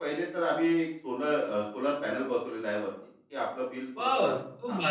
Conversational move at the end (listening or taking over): taking over